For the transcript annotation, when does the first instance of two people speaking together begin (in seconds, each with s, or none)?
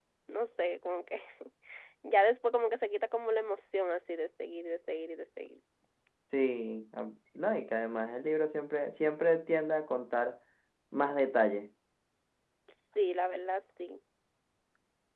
none